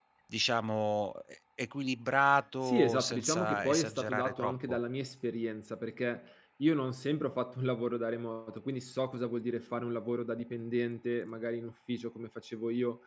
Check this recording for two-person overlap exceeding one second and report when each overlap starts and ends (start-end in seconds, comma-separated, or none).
2.6-4.8